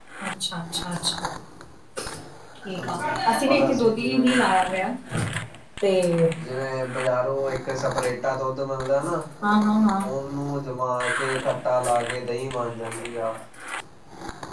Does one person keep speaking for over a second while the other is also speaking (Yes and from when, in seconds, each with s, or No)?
Yes, from 2.8 s